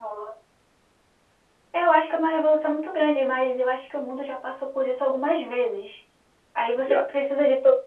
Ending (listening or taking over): listening